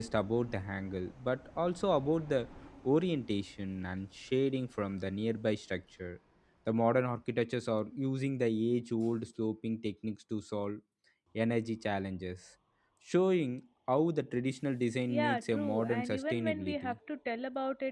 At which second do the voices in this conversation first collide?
15 s

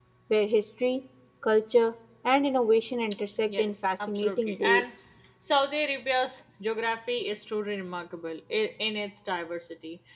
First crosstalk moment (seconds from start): 3 s

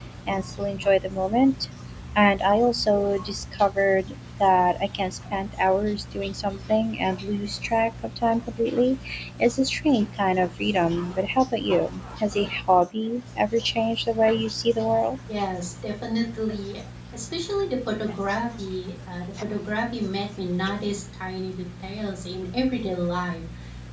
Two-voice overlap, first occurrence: none

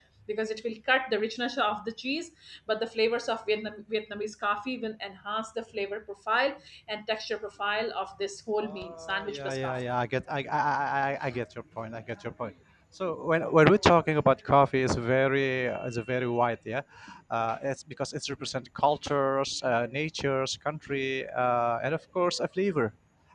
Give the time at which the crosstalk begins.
9 s

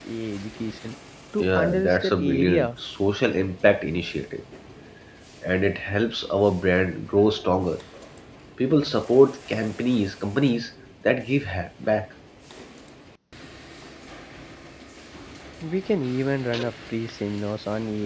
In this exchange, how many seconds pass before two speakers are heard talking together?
1 s

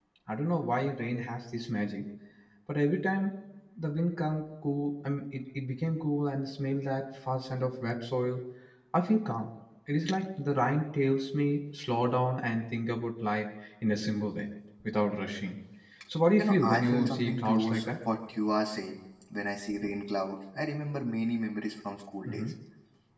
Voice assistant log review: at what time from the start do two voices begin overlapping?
16 s

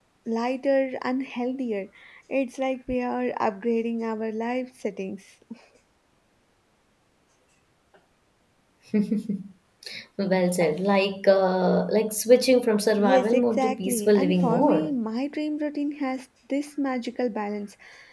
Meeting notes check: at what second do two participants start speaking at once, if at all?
13 s

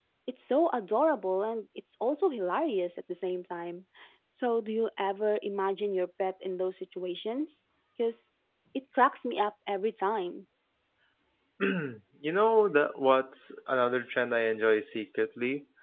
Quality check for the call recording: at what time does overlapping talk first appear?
none

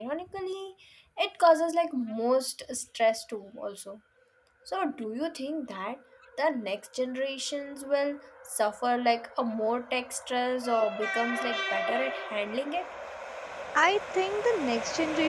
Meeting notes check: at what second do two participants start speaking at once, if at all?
none

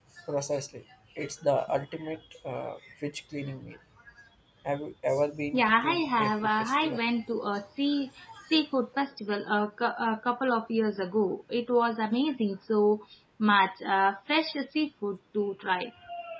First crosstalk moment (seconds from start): 6 s

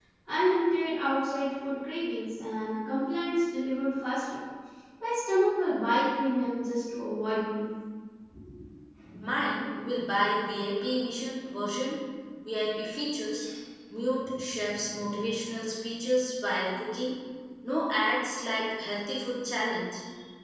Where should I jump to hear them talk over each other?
none

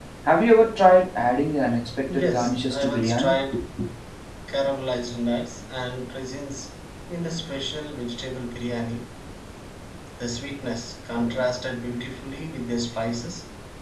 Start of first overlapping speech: 2 s

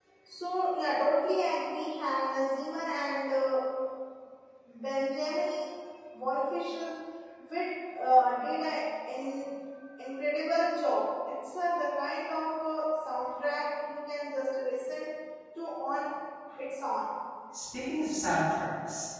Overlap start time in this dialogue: none

